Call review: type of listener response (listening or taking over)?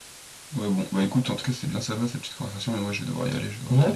taking over